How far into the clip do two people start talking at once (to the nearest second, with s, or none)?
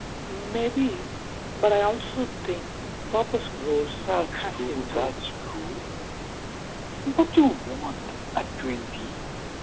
4 s